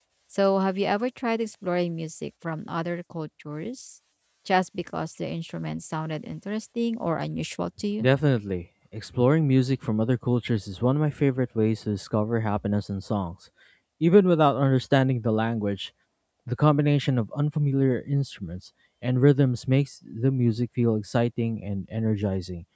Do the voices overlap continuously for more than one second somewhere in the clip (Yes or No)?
No